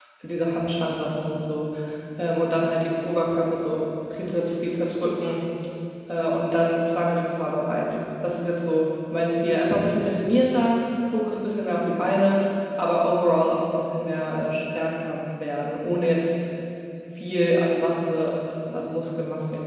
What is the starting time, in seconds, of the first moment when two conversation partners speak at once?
none

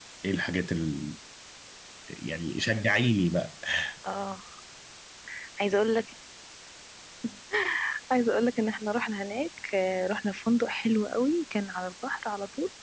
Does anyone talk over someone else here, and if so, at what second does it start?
none

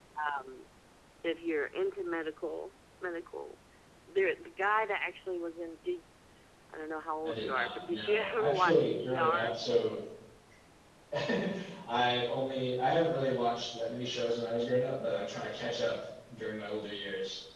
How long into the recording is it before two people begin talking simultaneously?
7.2 s

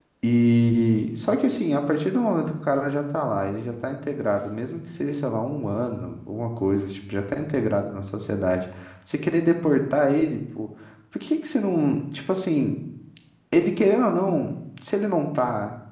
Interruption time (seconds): none

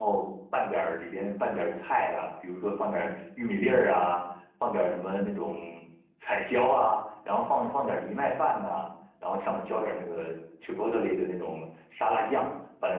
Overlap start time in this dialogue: none

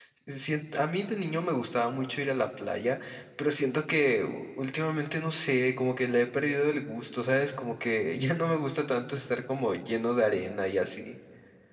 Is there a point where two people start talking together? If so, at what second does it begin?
none

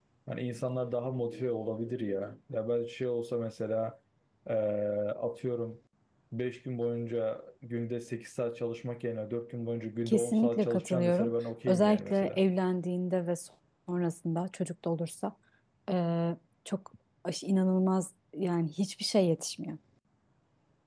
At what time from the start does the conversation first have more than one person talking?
10.1 s

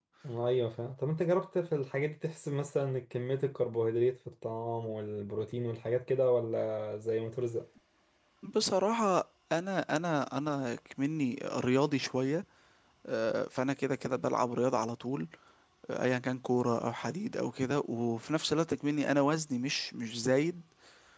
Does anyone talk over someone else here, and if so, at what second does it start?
none

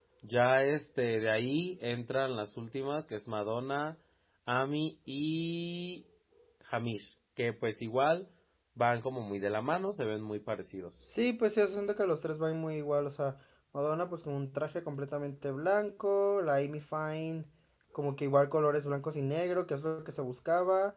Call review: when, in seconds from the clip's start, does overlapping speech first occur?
none

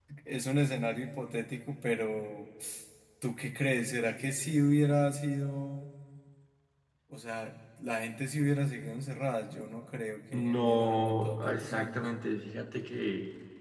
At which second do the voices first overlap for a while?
10.3 s

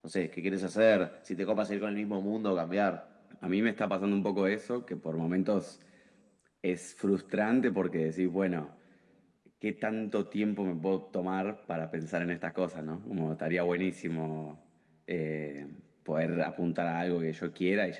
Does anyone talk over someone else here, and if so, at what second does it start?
none

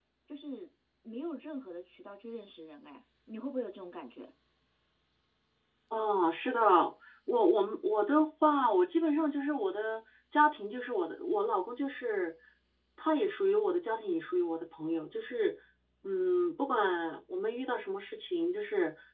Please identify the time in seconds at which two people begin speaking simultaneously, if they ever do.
none

